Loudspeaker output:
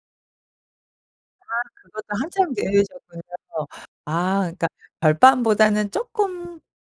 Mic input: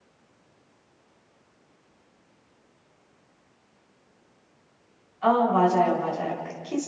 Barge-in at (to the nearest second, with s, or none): 5 s